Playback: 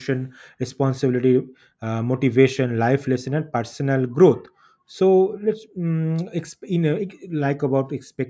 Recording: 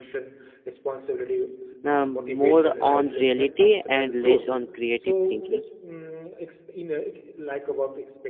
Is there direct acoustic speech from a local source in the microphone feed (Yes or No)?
Yes